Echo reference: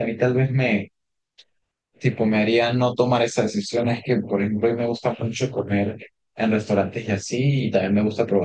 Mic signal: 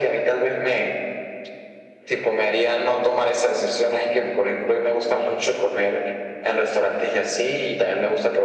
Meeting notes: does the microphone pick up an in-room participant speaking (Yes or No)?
No